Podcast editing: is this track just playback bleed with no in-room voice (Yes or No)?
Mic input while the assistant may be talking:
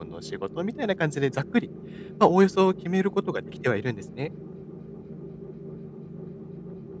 No